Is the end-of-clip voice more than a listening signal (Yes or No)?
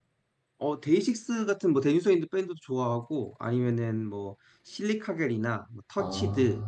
No